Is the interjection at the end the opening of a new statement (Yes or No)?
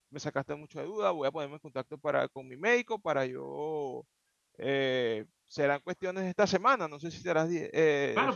Yes